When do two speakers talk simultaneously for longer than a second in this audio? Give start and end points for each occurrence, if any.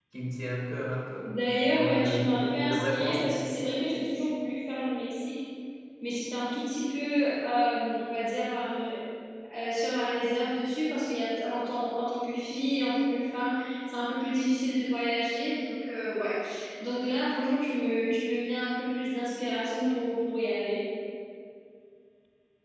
1.7-3.4

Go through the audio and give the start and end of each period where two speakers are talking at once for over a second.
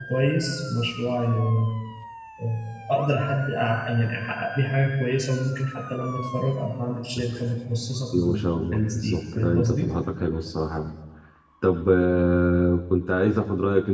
8.1-9.9

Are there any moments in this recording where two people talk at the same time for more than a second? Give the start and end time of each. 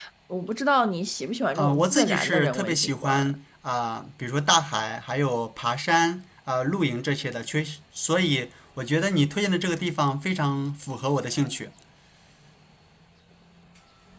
1.6-3.1

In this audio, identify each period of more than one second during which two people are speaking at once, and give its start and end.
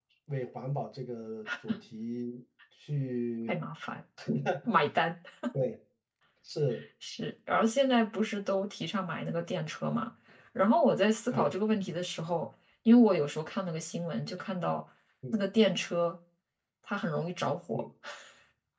none

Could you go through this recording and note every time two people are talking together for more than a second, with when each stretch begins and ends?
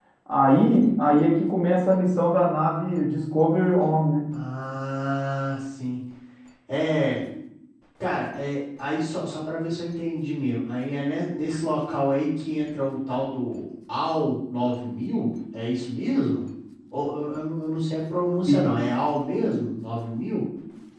none

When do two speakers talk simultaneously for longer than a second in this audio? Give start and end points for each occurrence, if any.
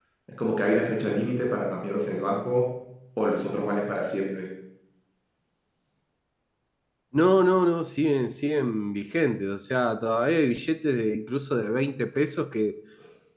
none

